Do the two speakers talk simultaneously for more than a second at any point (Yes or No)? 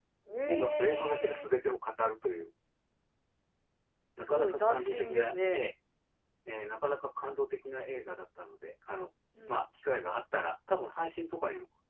Yes